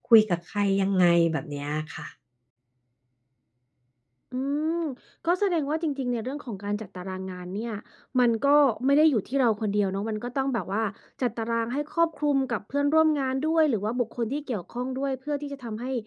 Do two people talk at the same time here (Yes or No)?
No